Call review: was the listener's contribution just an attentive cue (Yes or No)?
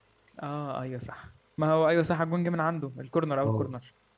No